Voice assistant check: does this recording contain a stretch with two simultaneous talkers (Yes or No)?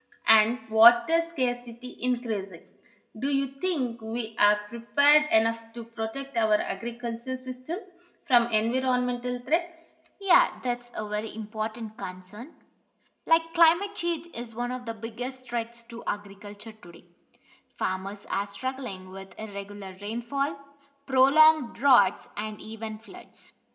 No